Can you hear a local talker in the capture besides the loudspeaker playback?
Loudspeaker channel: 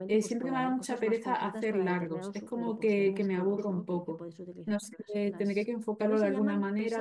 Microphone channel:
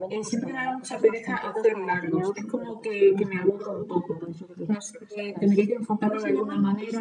No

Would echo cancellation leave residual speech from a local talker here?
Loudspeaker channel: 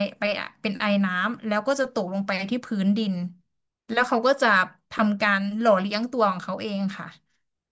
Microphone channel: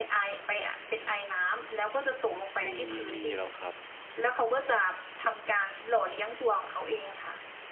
Yes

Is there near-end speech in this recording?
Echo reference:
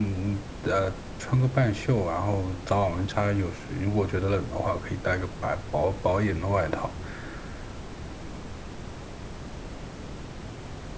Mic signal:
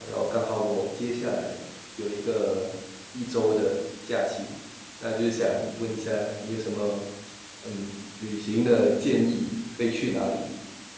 Yes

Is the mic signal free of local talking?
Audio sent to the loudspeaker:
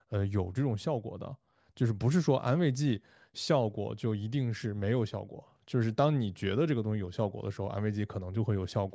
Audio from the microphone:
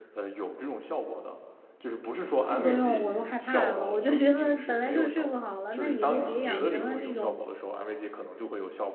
No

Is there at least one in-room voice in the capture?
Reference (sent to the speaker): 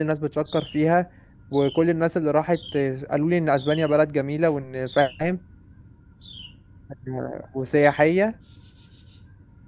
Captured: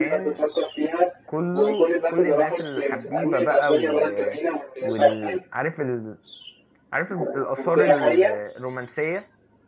Yes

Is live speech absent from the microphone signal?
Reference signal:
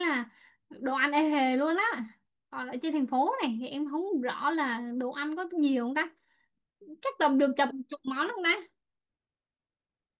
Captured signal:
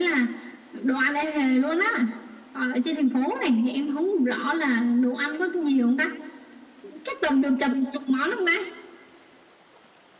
Yes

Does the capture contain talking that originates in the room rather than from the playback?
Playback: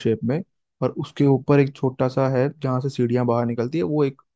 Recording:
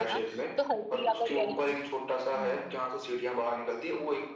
Yes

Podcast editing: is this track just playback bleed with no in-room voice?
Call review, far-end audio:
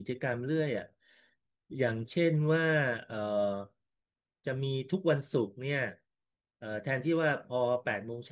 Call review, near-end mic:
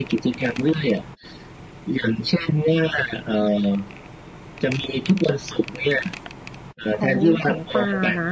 No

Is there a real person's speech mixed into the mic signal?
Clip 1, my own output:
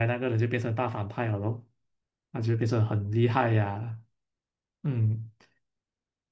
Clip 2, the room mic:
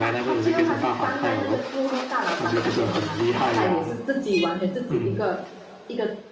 Yes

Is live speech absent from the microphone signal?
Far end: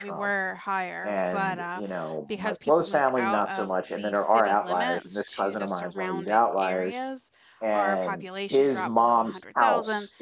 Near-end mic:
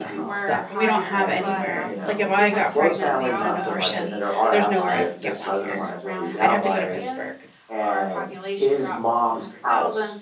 No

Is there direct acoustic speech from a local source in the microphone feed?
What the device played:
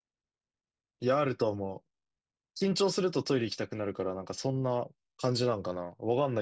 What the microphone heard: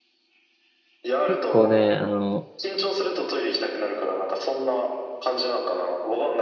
Yes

